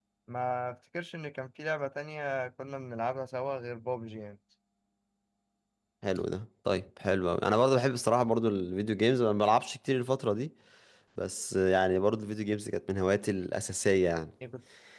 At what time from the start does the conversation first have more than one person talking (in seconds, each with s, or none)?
none